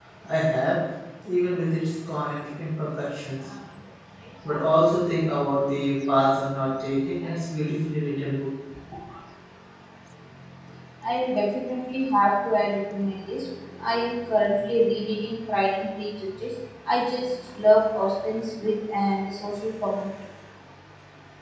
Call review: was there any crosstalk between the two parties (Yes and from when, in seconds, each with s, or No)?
No